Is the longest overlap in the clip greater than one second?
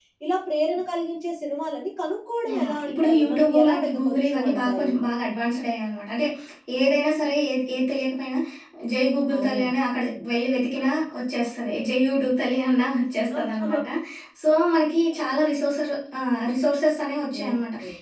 Yes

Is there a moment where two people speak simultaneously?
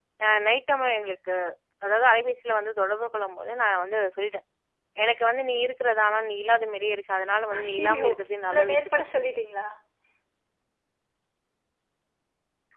Yes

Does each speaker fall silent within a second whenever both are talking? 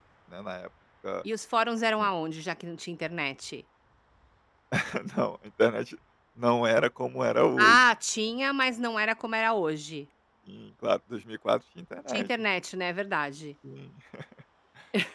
Yes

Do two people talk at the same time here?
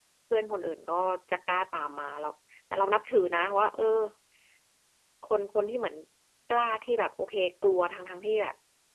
No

